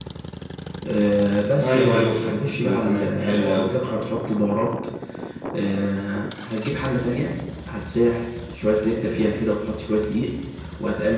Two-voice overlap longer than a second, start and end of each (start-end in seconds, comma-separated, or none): 1.6-3.7